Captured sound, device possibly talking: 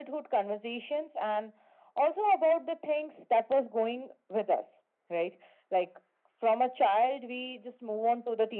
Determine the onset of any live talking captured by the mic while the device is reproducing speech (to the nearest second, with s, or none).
none